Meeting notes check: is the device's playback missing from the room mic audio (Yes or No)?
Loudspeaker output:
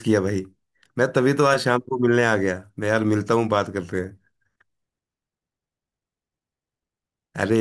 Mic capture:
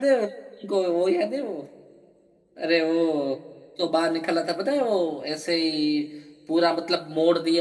Yes